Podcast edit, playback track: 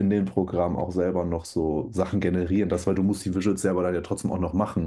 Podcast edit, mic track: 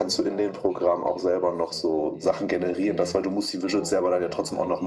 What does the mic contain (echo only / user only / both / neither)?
both